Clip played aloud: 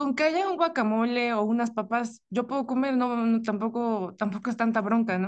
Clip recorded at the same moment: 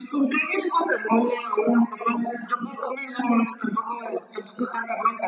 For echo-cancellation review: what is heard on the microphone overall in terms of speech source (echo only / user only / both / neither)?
echo only